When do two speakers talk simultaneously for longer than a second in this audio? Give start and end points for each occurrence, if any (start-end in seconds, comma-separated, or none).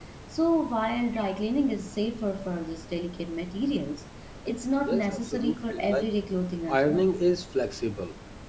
4.8-6.1